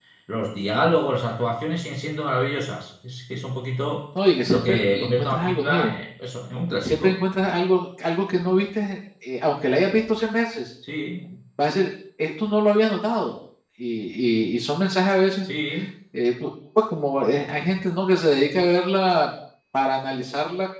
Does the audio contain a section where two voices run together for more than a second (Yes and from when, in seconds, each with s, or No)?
Yes, from 4.4 s